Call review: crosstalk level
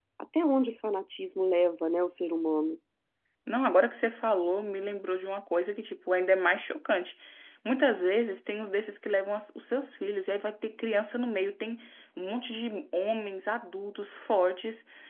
none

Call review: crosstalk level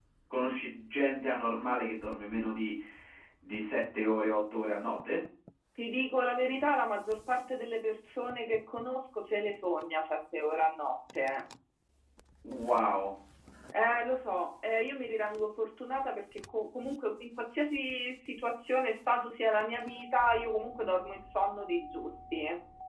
none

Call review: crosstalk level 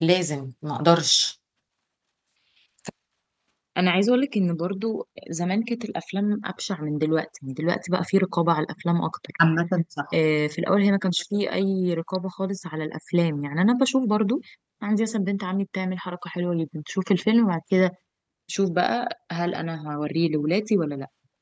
none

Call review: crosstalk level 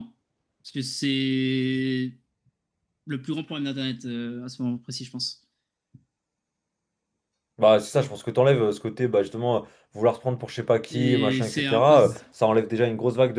present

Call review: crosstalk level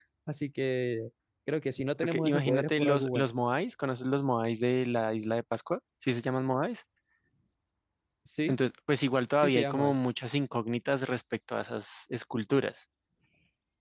present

